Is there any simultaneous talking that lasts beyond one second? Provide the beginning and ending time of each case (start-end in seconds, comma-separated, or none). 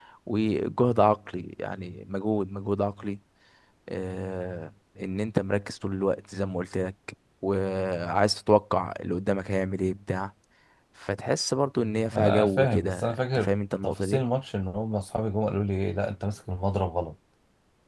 12.1-13.5